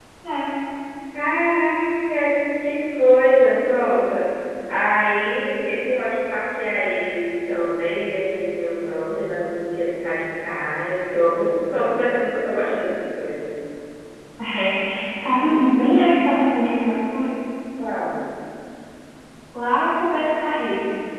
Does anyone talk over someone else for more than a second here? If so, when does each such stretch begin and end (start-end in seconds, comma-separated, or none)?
none